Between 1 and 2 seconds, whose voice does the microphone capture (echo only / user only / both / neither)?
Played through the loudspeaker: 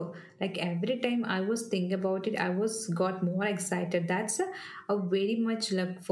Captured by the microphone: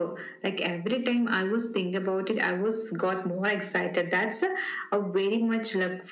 echo only